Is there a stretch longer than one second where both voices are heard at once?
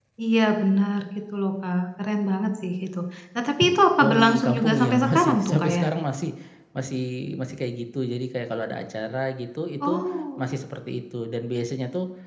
Yes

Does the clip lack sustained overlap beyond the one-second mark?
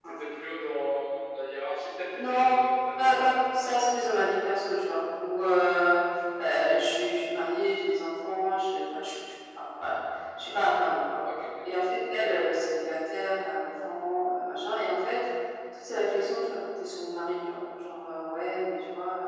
Yes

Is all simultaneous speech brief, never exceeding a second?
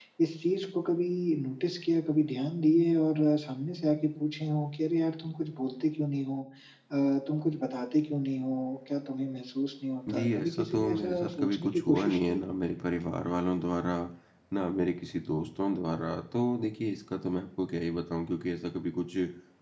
No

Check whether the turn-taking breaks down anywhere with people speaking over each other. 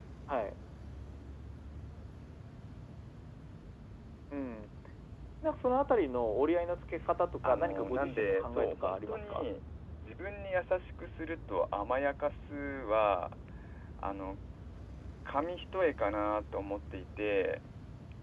Yes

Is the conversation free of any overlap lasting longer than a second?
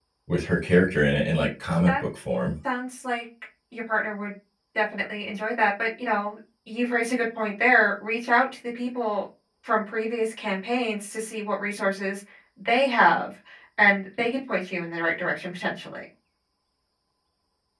Yes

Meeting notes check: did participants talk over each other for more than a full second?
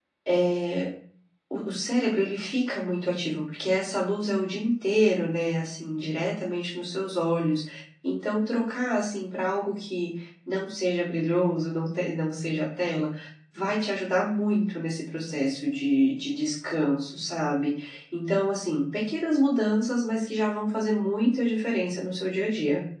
No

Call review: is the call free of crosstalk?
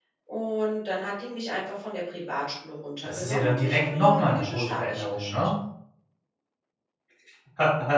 No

